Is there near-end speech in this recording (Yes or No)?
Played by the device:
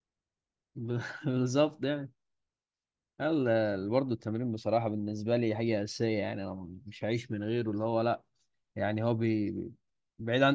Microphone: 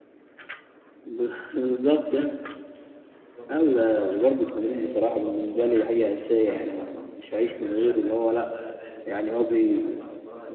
Yes